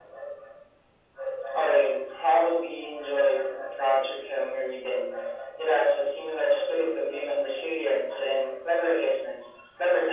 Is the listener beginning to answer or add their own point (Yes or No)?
Yes